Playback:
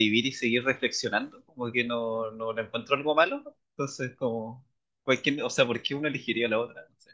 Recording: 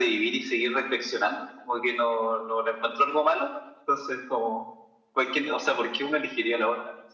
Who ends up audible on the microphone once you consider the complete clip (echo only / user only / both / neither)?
echo only